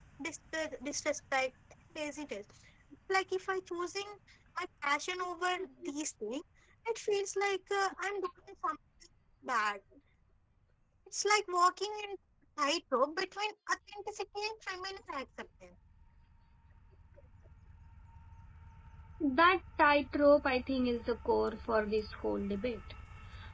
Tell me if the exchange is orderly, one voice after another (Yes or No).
Yes